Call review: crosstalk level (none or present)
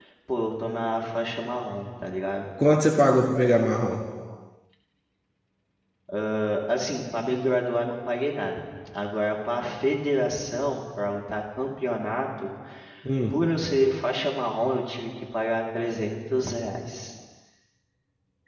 none